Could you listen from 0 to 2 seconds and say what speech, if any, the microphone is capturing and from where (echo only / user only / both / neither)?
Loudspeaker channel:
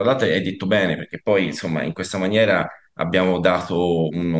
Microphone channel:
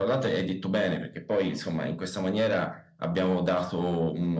echo only